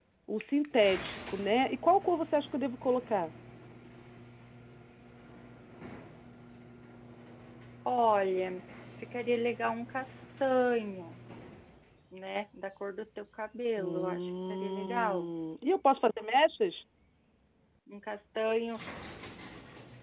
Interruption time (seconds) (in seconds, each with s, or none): 13.8 s